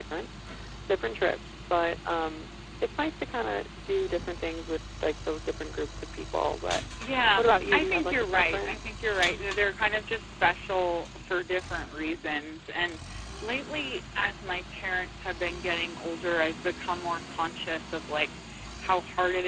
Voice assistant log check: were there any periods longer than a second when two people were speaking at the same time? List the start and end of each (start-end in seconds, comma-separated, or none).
7.4-8.9